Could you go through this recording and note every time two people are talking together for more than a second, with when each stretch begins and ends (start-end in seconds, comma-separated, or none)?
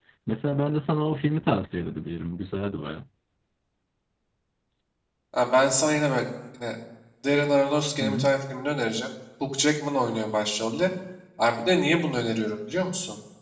none